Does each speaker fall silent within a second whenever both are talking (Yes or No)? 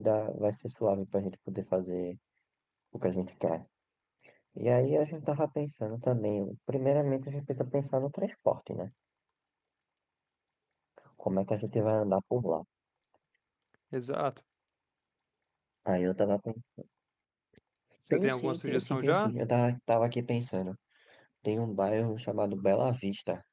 No